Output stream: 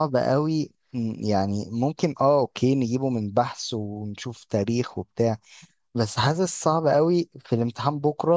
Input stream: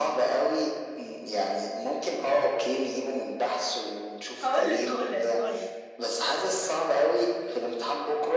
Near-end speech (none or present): present